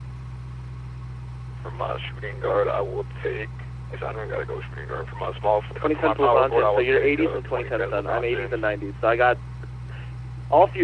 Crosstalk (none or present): present